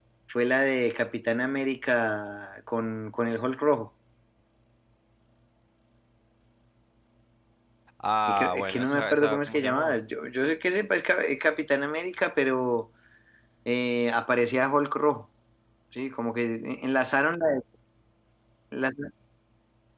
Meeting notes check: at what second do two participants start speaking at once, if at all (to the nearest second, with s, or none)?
8 s